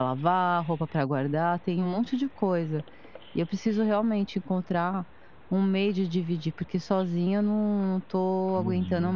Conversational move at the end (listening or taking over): taking over